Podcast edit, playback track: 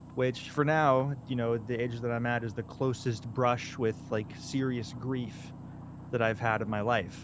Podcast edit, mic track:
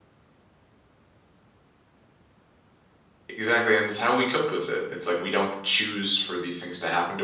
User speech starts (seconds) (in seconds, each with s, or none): 3.4 s